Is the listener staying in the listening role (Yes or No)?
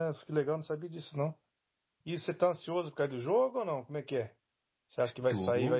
Yes